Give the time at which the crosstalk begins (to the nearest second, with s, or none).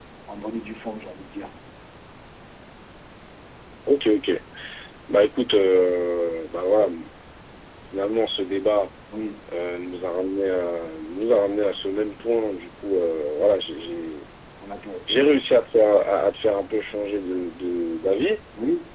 none